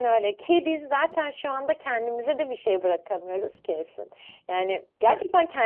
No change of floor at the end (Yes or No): Yes